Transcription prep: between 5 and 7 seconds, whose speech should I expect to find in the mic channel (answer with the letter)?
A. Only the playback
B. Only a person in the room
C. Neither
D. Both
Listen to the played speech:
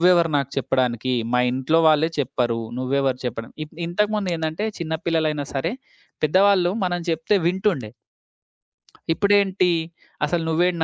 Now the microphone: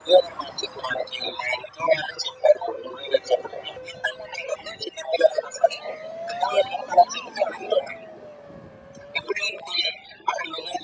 A